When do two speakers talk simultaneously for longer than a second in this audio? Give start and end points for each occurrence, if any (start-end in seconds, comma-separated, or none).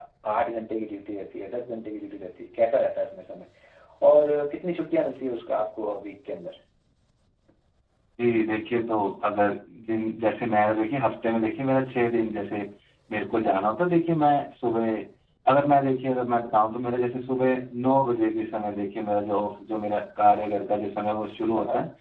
none